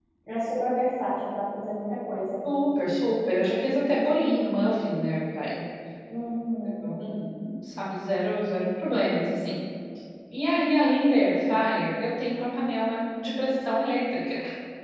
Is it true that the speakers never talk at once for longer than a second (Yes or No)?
Yes